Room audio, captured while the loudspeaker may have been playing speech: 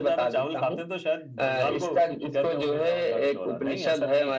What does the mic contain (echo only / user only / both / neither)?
echo only